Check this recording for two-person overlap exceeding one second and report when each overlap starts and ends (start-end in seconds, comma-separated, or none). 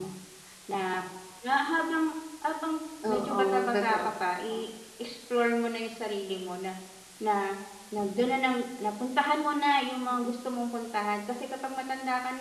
3.1-4.6